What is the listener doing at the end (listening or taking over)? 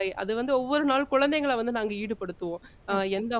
listening